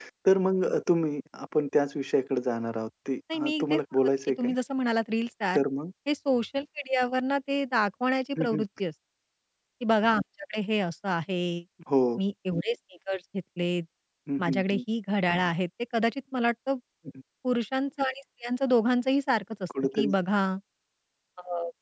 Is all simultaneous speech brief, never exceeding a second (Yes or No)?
No